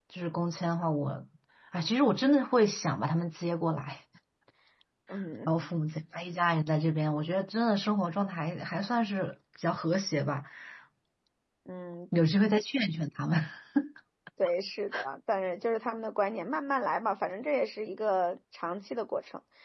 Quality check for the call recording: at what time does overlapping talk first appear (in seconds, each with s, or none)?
none